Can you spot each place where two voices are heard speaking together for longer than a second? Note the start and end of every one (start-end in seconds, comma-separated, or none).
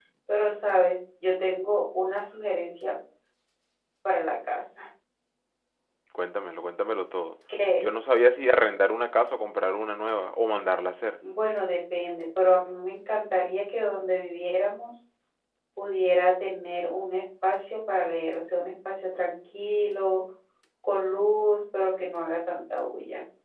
none